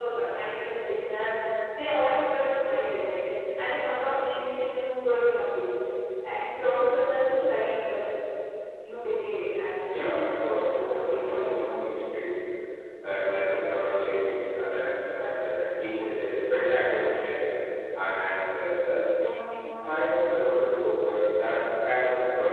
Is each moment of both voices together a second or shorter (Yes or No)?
No